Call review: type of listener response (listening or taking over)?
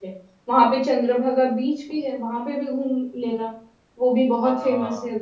taking over